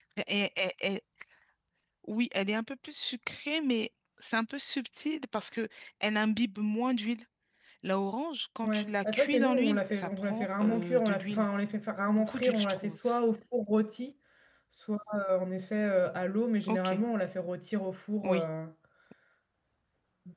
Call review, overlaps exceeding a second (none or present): present